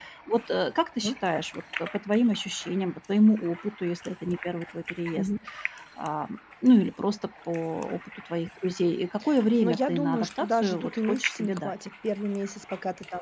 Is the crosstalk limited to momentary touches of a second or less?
No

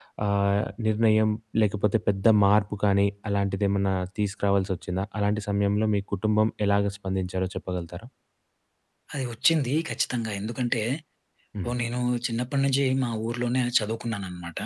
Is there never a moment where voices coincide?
Yes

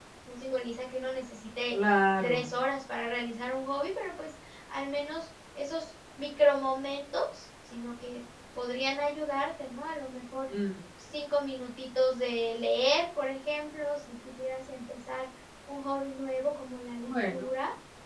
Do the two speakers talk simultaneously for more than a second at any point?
No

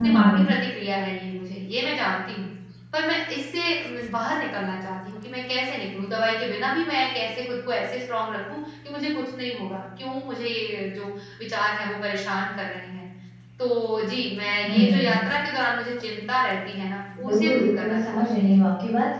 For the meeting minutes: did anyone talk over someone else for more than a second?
Yes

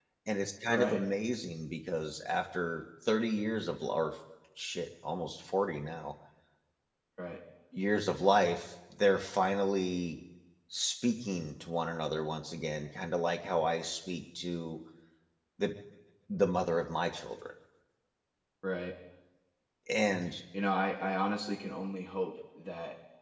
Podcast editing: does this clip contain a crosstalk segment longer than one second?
No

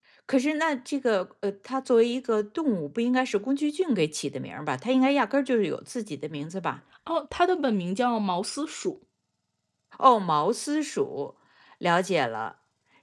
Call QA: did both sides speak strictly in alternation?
Yes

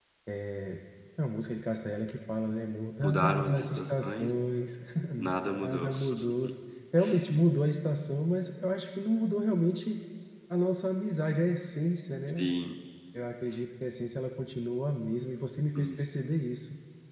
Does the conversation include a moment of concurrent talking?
Yes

